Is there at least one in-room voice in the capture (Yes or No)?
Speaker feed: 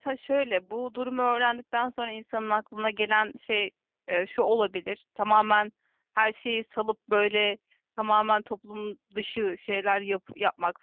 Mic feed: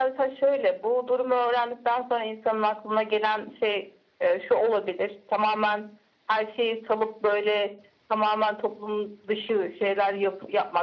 No